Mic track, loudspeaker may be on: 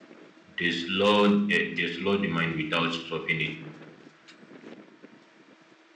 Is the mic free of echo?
Yes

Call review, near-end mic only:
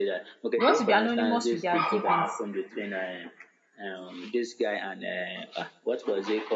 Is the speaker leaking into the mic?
Yes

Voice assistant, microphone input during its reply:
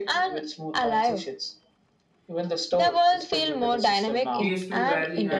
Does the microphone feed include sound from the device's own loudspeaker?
Yes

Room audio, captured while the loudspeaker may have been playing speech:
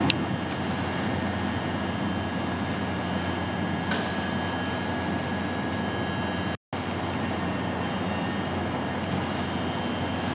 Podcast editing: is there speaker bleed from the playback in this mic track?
No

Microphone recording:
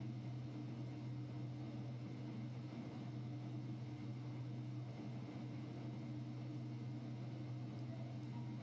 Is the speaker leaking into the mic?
No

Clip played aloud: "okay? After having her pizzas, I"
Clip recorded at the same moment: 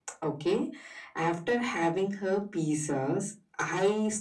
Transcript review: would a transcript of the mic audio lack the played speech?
No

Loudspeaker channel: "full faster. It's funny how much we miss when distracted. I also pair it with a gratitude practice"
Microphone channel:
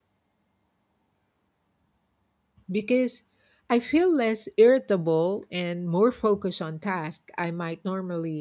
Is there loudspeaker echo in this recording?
No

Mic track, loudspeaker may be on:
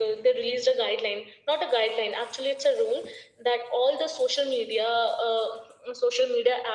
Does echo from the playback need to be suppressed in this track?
Yes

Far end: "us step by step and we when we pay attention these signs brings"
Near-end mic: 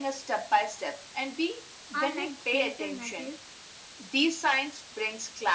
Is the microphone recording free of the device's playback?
No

